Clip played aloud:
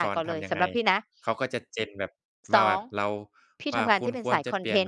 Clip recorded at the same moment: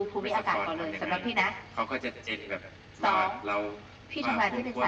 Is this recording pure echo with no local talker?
Yes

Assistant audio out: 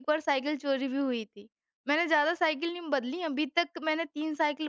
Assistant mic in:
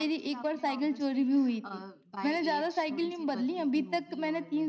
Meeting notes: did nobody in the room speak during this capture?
No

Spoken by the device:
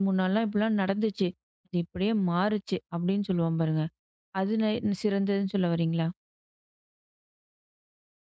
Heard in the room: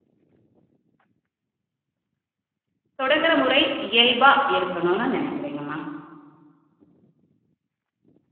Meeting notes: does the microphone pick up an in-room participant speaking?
Yes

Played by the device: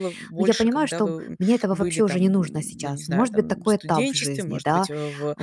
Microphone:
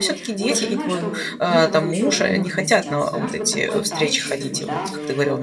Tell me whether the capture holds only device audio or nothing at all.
No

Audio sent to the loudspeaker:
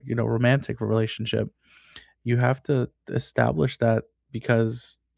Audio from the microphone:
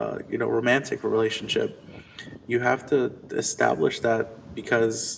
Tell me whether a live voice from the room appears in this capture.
No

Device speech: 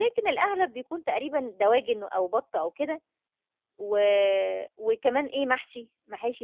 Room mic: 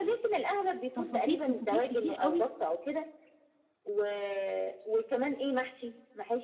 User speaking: Yes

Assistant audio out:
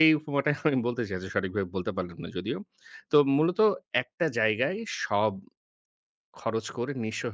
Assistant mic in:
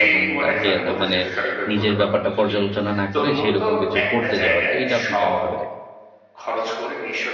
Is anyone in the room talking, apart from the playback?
Yes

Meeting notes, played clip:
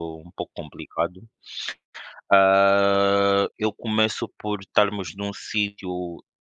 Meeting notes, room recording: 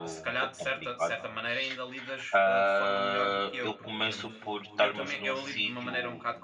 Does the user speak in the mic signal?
Yes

